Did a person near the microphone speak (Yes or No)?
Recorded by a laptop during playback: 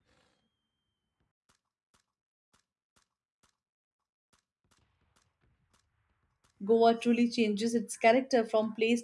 Yes